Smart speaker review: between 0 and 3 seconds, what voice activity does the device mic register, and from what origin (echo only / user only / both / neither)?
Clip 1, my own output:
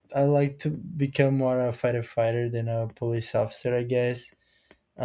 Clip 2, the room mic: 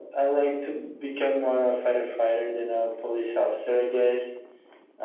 echo only